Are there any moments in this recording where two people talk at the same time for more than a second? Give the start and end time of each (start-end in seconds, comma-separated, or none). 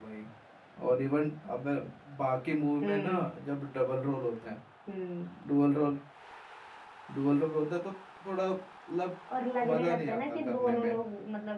9.7-10.9